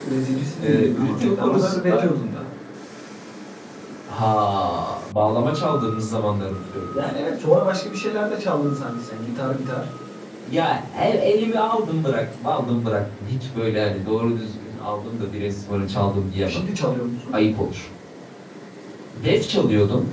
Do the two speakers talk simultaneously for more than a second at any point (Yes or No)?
Yes